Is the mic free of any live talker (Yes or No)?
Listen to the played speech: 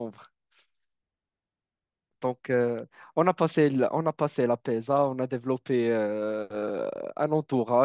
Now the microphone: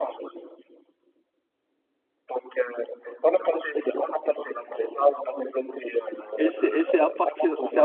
No